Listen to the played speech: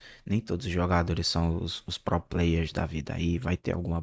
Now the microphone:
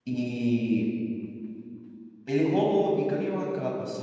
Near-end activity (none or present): present